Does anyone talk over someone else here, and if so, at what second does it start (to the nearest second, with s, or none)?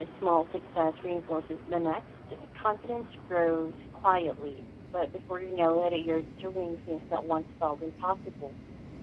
none